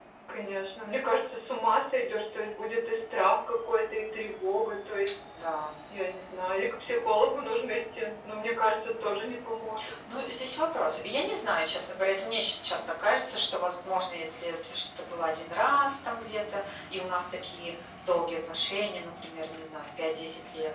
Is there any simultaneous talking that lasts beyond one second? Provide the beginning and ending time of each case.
none

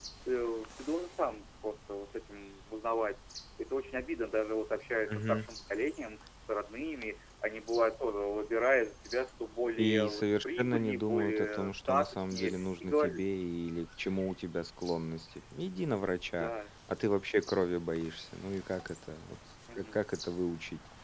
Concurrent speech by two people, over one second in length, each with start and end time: 9.8-13.2

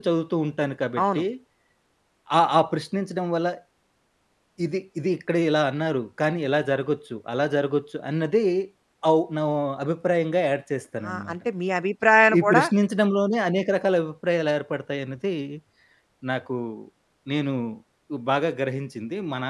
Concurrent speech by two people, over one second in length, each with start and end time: none

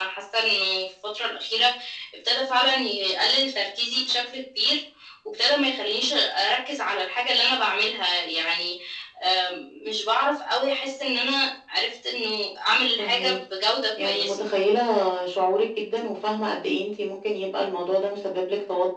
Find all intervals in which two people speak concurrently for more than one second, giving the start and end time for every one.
none

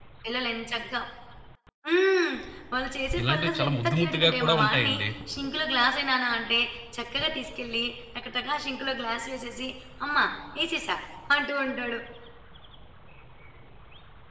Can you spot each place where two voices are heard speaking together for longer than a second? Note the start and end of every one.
3.2-5.0

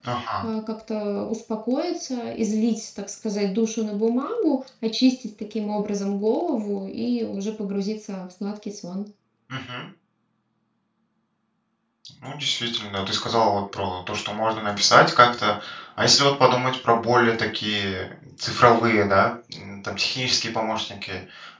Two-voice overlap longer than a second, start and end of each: none

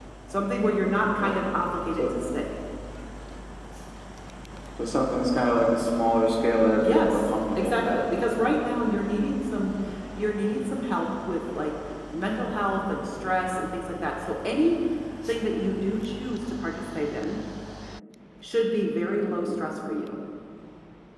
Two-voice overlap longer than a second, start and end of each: 6.8-8.5

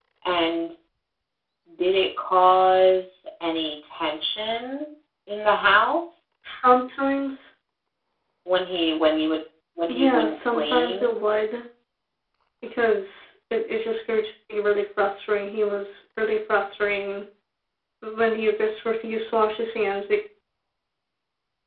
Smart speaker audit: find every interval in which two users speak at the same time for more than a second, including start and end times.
9.9-11.1

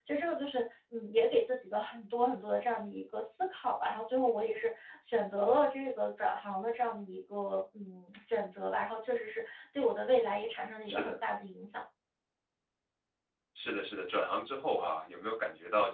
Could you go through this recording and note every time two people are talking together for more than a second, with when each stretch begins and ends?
none

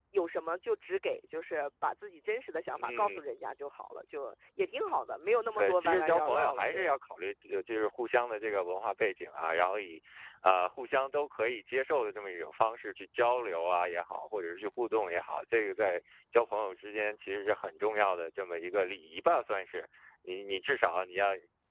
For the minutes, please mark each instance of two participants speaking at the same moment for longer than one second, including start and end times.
5.6-7.0

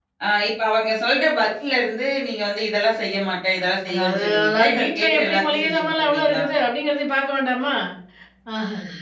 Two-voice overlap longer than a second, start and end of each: 3.9-6.4

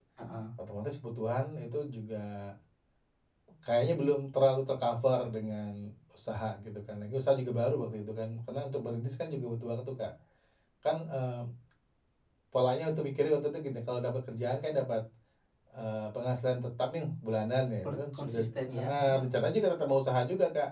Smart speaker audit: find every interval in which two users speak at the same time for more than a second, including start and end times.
17.9-19.3

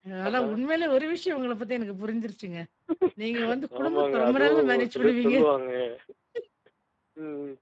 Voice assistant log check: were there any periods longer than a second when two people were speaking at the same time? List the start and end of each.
3.8-5.4

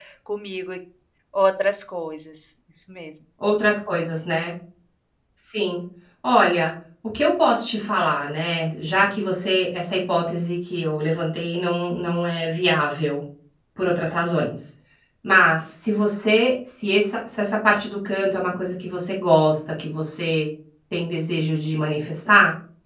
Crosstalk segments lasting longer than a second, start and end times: none

